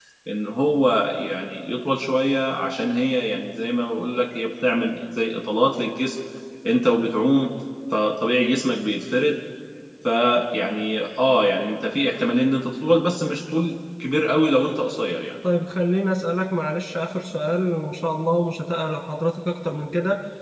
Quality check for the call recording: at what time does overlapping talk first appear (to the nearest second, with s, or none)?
none